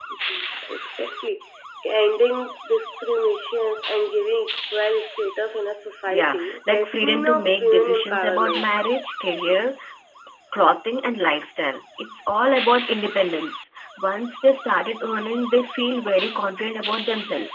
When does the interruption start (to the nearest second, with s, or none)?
6 s